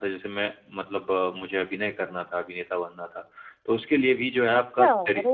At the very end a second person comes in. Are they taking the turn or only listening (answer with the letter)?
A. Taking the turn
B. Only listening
A